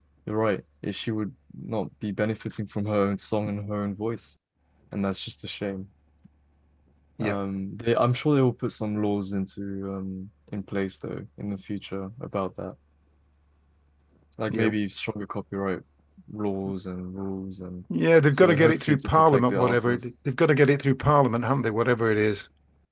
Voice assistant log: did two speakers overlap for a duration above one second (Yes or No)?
Yes